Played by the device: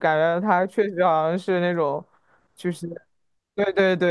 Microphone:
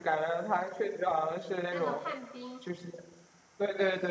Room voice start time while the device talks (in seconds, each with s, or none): 1.7 s